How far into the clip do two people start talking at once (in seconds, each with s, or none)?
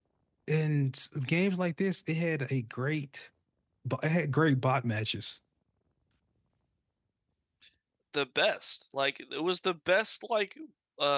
none